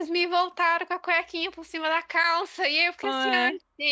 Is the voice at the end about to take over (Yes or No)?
No